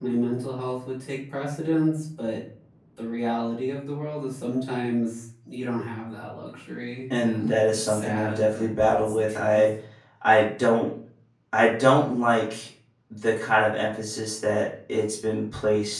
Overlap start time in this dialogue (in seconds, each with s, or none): 7.1 s